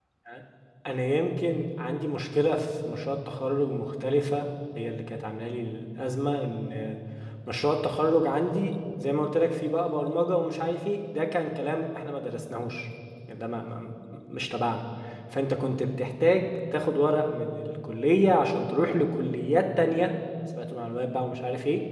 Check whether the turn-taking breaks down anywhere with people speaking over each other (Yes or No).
No